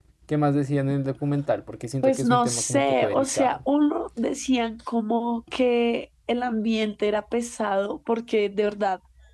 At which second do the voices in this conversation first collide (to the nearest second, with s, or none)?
2 s